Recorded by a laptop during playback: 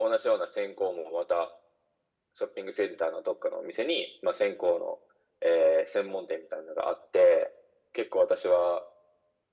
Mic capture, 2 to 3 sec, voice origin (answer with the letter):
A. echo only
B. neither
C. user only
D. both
A